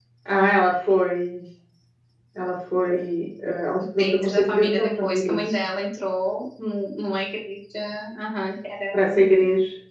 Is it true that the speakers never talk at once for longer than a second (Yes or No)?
No